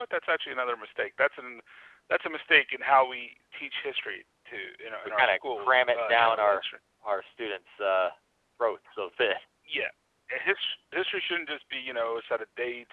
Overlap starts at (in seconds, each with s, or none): 5.2 s